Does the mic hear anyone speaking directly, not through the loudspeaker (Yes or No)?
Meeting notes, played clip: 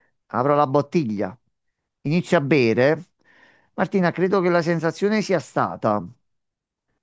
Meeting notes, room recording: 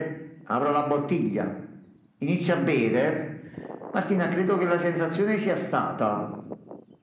No